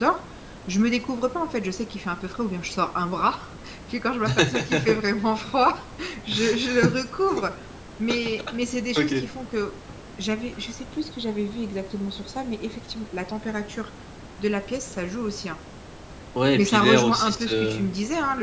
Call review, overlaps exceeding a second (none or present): present